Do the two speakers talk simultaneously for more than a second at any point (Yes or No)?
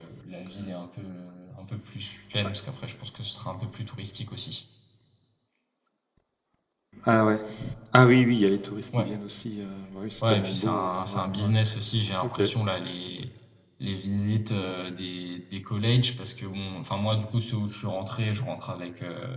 Yes